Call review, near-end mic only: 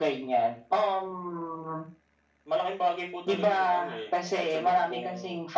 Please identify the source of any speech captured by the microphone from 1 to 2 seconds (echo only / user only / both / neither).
echo only